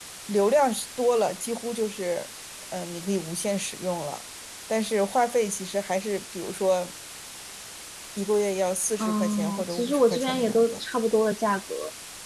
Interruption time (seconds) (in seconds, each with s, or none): 9.0 s